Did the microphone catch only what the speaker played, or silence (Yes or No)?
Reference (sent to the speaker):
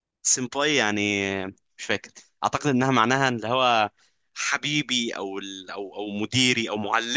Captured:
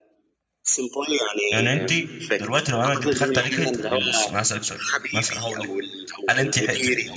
No